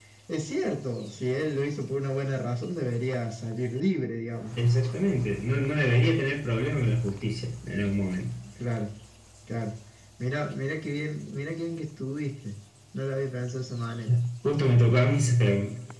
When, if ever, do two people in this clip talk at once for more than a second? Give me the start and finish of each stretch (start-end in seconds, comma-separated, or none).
none